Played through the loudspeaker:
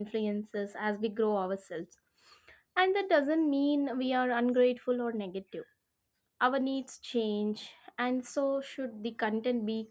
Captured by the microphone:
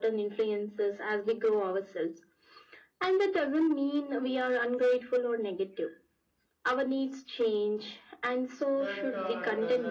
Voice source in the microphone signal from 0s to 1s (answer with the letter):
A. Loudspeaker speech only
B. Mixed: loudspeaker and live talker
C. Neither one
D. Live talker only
A